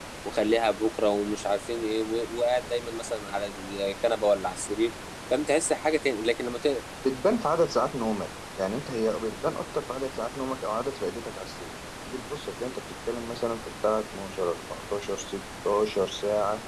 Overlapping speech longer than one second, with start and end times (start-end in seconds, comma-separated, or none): none